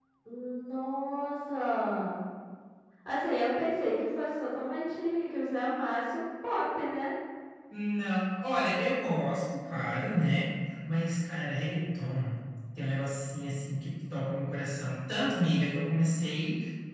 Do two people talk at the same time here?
No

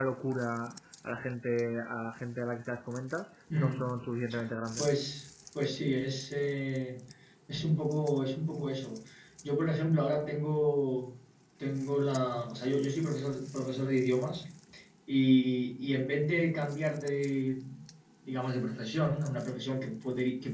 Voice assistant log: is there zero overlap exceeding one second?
Yes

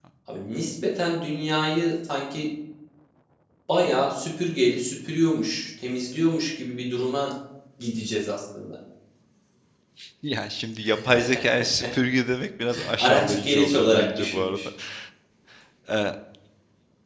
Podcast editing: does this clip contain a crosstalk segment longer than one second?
Yes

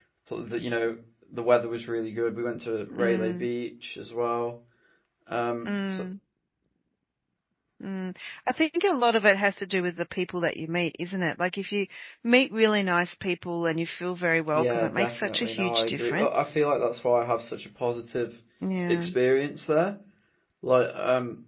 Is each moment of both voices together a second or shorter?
No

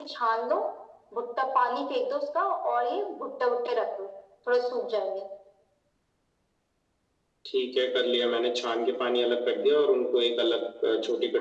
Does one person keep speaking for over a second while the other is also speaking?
No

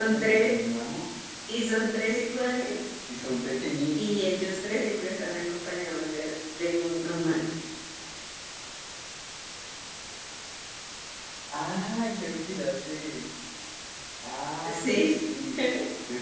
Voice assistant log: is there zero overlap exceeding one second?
Yes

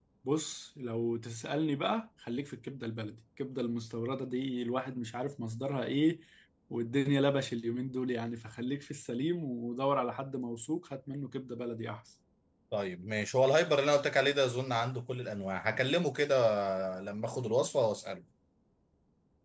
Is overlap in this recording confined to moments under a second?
Yes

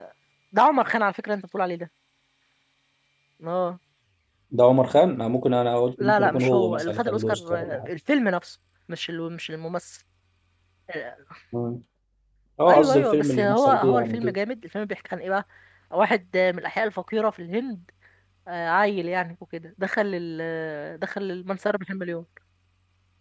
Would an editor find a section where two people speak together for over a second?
Yes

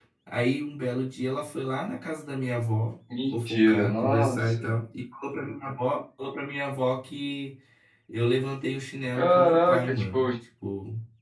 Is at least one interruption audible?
Yes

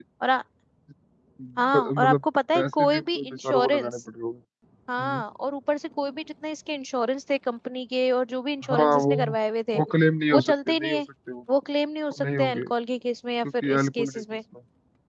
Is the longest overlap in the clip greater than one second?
Yes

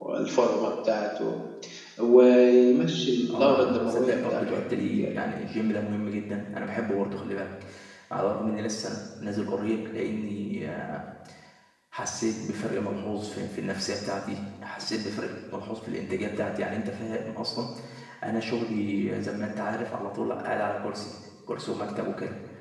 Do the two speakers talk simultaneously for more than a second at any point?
Yes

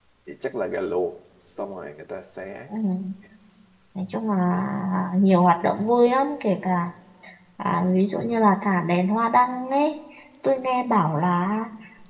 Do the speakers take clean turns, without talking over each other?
Yes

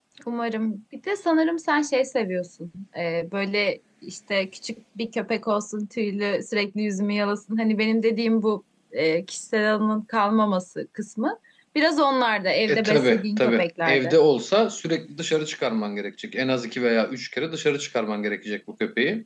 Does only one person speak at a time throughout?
No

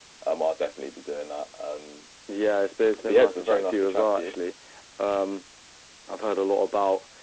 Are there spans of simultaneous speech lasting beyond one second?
Yes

